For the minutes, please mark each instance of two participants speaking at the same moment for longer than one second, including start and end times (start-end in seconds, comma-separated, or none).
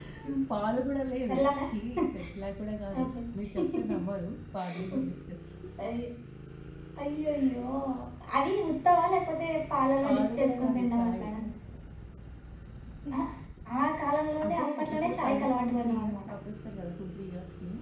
10.0-11.3, 14.5-16.2